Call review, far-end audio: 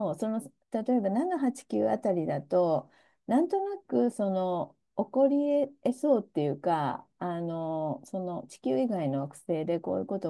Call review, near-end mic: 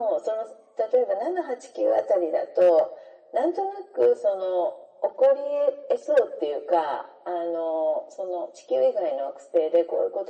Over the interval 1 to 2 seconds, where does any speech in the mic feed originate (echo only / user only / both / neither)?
echo only